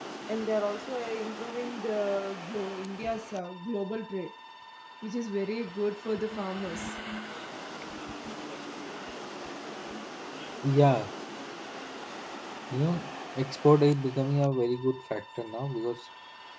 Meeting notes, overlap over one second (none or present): none